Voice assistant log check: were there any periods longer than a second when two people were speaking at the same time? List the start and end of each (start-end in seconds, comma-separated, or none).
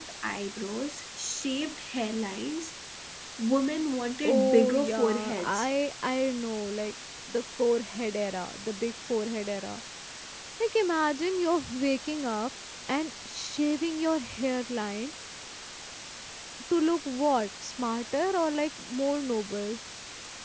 4.2-5.7